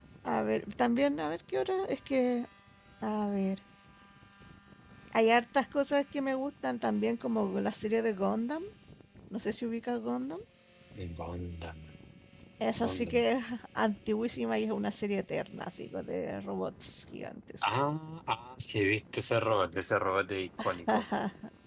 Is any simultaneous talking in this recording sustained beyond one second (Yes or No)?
No